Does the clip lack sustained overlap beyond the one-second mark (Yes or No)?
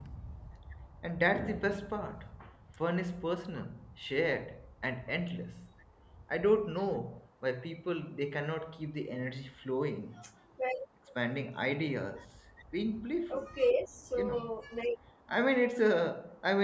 Yes